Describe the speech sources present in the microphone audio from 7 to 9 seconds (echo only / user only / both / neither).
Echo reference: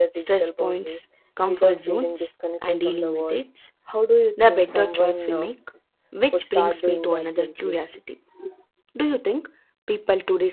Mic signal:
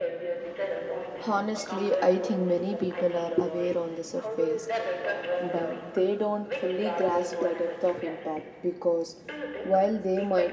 both